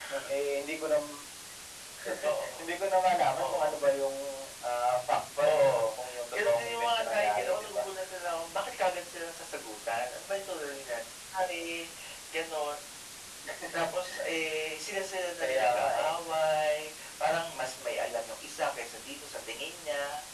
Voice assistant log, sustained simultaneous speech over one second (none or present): present